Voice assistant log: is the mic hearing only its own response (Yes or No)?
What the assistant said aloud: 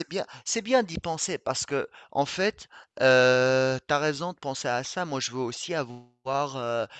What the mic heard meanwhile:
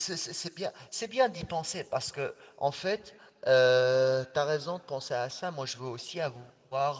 Yes